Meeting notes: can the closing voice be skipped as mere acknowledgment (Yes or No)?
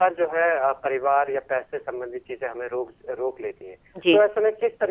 Yes